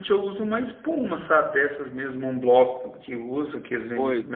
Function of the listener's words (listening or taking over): taking over